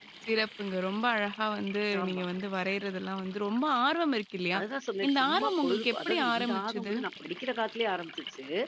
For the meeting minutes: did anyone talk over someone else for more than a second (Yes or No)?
Yes